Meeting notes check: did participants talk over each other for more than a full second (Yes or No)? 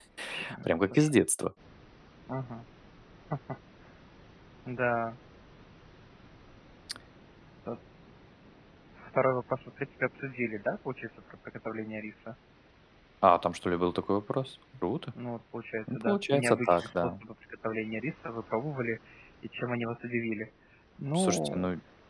Yes